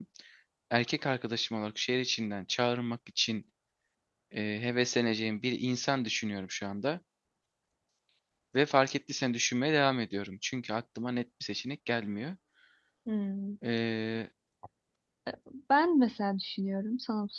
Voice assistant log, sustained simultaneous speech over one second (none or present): none